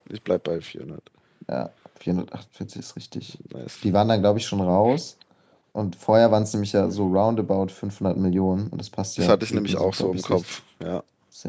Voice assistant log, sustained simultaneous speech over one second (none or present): present